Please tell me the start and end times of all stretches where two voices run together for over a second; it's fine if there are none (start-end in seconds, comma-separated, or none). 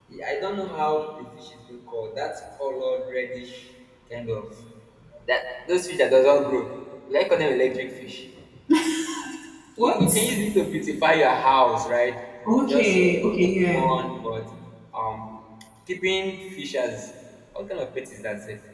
12.7-13.9